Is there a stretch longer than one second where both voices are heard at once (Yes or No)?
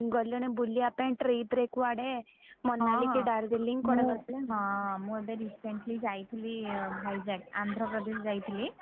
No